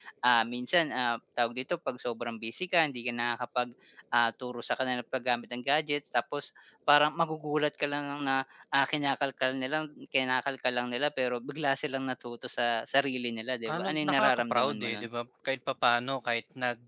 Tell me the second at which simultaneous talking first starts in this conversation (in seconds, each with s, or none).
13.6 s